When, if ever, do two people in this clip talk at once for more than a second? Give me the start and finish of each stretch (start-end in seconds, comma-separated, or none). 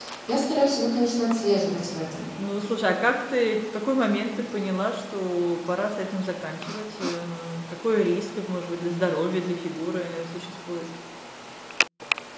none